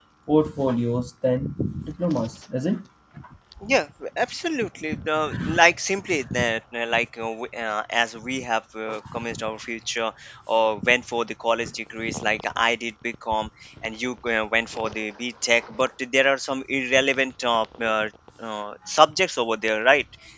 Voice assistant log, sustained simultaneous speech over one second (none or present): none